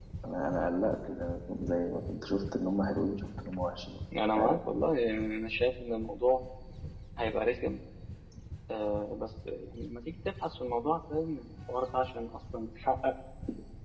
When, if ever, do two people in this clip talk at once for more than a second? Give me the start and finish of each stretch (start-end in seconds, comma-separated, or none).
none